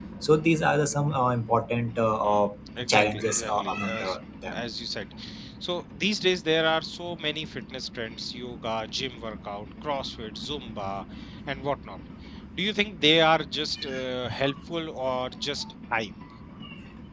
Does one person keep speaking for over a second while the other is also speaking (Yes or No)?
Yes